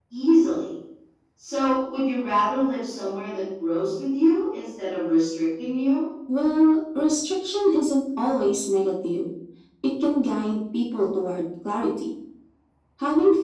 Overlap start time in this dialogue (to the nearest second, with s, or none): none